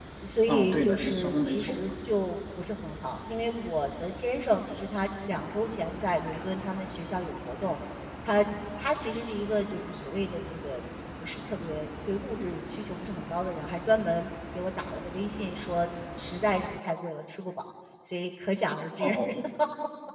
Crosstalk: present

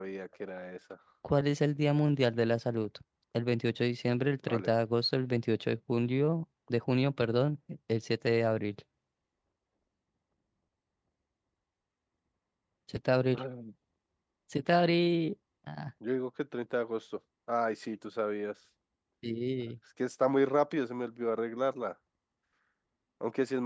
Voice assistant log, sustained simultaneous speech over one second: none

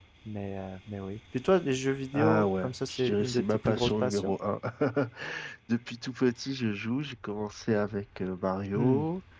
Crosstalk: present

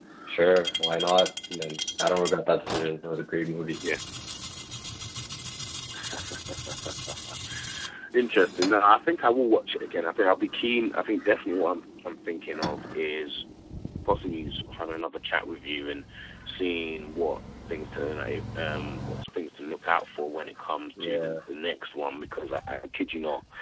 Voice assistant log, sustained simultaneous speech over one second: none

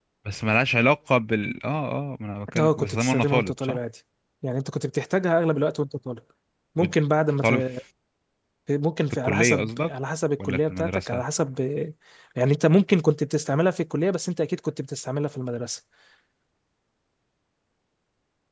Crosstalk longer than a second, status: present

